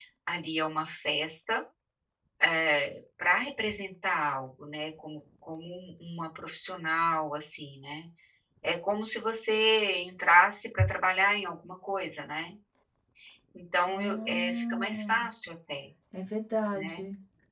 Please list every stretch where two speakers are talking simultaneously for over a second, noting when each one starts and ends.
13.9-15.1

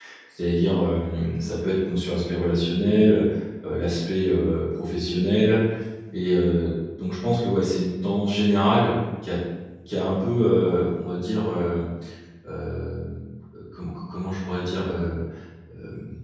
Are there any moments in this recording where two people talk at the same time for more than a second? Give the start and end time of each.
none

